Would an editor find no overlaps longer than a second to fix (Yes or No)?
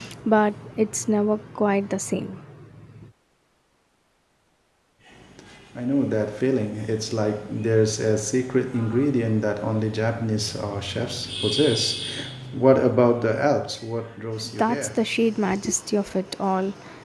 Yes